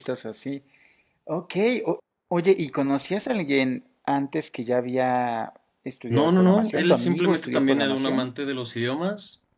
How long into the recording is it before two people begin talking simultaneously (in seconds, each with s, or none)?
6.1 s